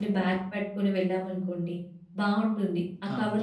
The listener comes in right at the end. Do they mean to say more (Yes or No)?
No